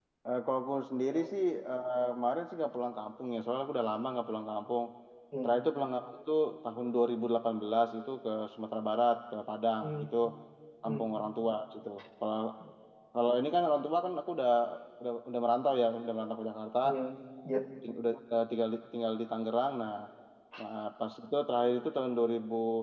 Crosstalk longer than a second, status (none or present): none